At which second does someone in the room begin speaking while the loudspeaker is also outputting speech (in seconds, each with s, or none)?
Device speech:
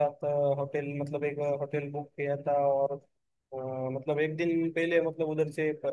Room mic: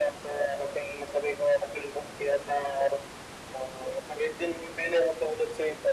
none